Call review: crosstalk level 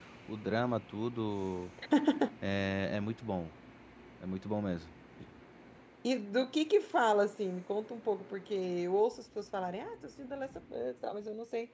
none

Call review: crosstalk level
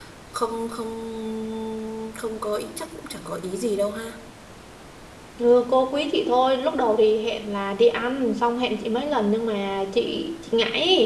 none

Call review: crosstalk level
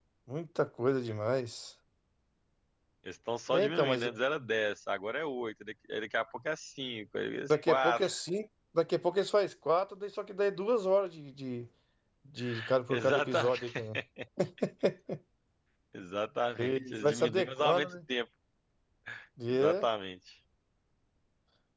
present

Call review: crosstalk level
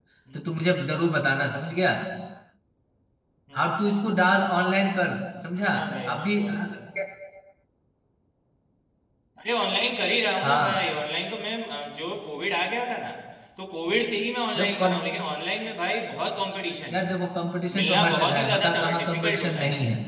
present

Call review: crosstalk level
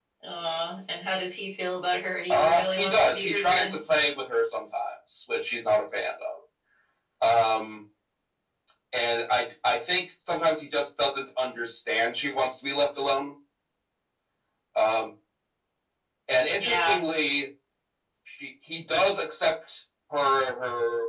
present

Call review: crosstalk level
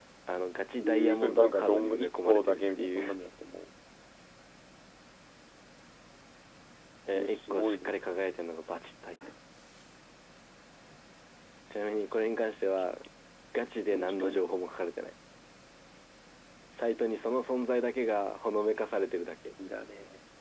present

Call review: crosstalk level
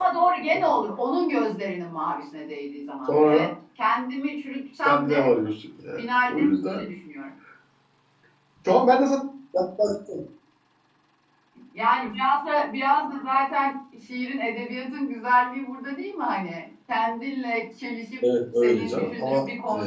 present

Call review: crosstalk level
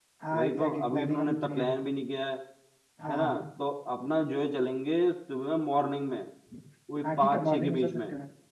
present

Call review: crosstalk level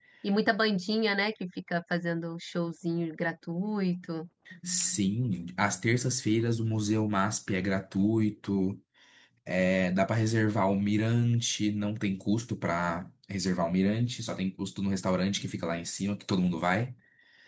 none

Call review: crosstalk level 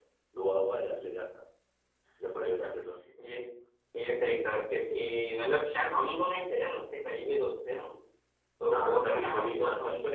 present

